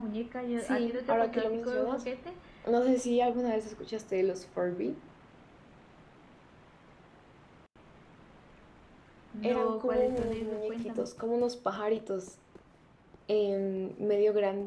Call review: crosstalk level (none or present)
present